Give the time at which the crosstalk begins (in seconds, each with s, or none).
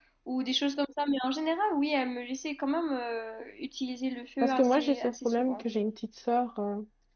4.4 s